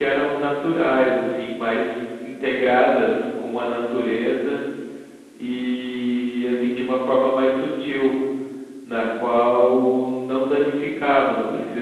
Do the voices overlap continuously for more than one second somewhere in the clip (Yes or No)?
No